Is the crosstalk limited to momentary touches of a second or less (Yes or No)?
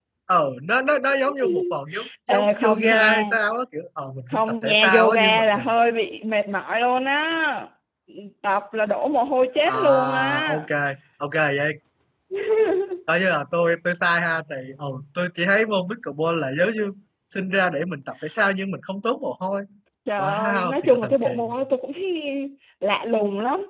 No